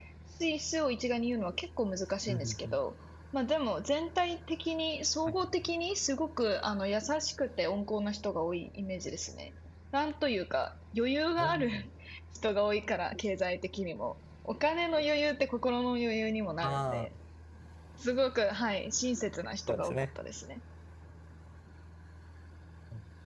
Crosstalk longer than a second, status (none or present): none